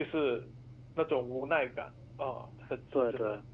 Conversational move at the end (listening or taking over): taking over